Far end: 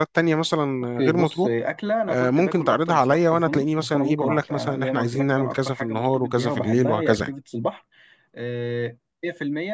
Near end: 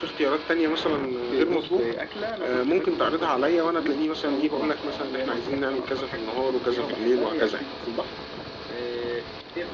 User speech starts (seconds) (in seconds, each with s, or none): none